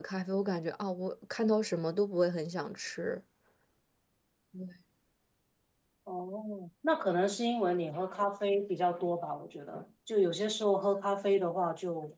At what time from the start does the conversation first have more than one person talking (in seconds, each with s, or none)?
none